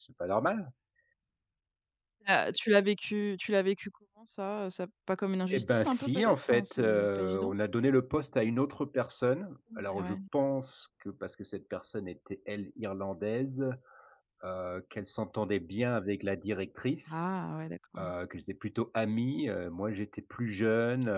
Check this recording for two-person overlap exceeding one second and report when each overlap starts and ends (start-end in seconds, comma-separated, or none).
5.5-7.5